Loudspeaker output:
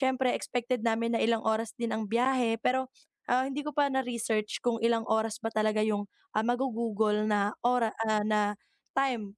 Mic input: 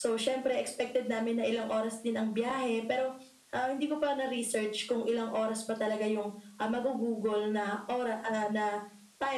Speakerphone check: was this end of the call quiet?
Yes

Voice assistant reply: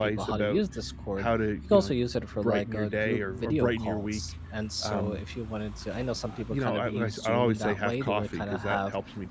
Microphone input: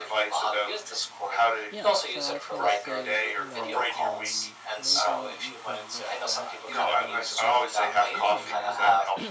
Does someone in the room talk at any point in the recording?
Yes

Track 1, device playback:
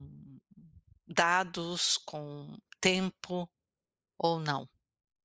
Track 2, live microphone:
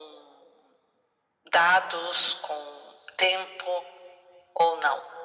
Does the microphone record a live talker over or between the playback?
No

